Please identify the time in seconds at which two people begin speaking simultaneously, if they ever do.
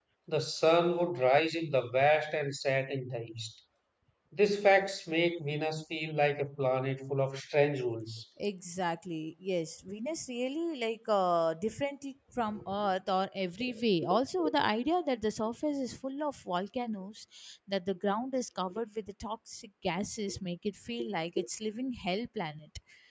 none

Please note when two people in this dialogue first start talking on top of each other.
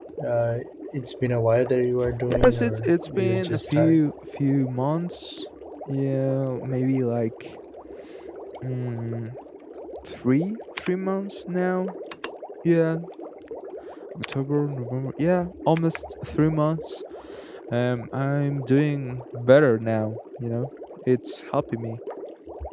2 s

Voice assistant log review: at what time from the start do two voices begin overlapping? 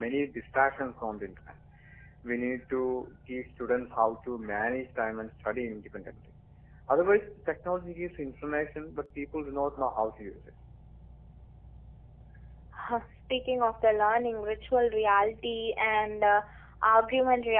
none

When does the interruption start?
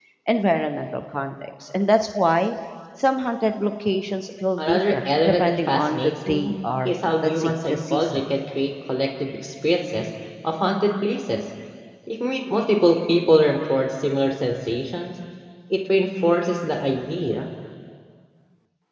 5 s

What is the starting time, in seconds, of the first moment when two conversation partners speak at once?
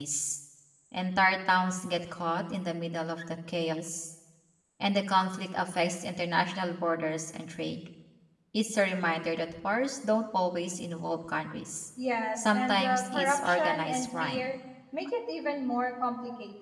12 s

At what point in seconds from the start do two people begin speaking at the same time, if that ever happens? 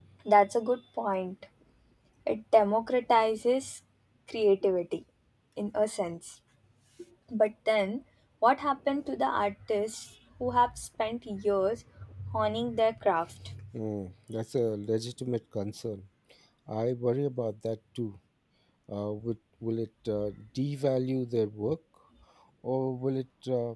none

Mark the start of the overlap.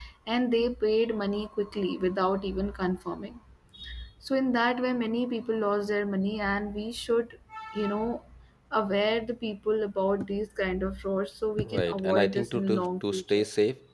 12 s

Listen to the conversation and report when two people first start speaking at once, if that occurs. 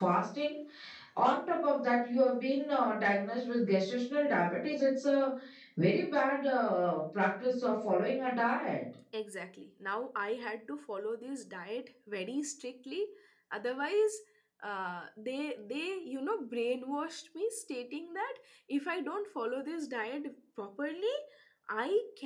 none

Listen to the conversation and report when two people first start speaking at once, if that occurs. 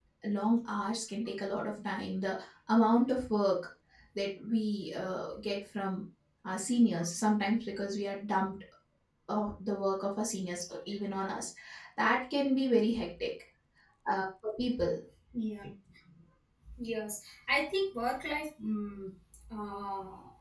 none

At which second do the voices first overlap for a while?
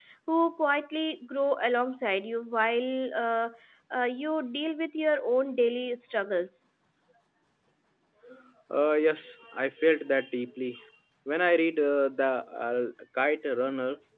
none

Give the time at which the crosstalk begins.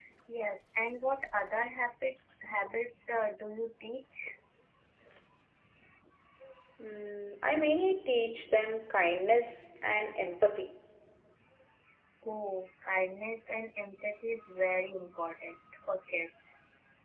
none

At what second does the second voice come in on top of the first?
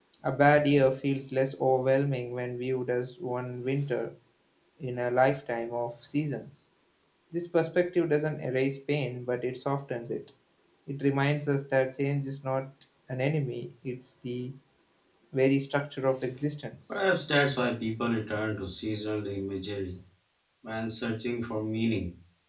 none

